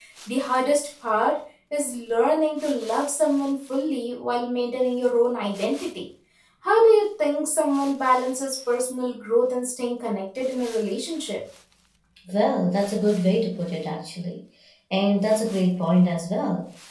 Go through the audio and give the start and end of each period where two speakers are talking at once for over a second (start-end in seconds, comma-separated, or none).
none